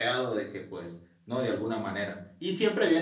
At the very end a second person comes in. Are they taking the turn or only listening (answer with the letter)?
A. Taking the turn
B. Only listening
B